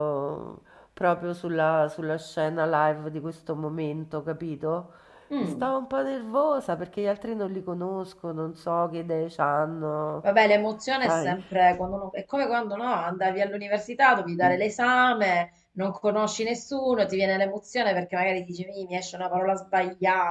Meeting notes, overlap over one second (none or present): none